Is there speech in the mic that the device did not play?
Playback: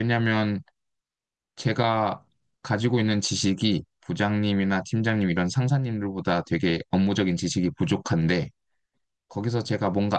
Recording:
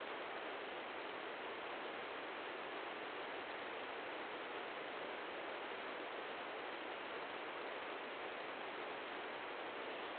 No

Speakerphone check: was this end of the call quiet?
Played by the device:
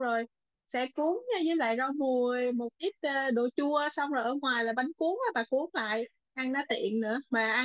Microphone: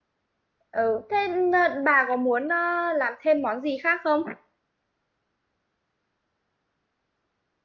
No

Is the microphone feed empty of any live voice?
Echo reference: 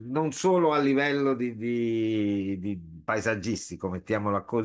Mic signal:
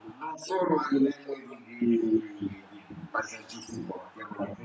Yes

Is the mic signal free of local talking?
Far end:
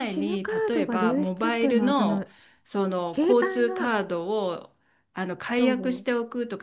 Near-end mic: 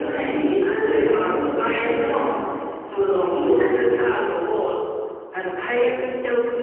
Yes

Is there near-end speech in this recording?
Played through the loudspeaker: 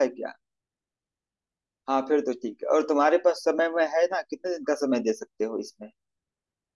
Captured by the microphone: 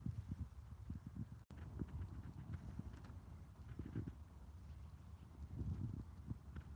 No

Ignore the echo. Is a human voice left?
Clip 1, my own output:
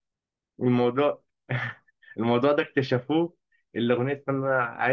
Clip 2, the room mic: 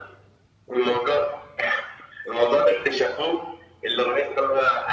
No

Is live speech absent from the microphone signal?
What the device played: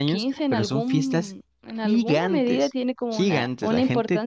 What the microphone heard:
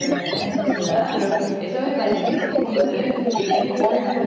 No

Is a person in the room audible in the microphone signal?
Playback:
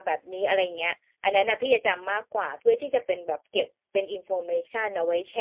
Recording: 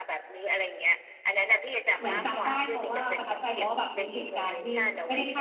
Yes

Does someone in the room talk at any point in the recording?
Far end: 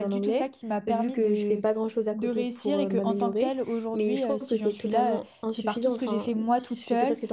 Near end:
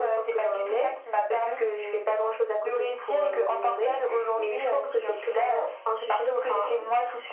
No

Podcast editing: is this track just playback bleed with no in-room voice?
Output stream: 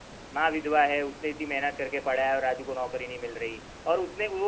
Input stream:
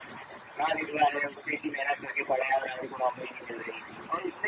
Yes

